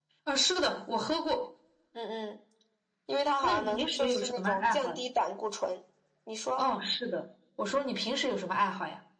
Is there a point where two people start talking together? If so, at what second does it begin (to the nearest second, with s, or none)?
3 s